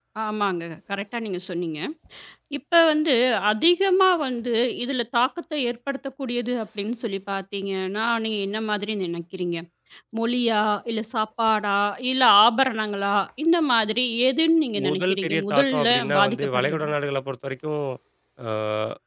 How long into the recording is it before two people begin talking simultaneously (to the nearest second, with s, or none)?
15 s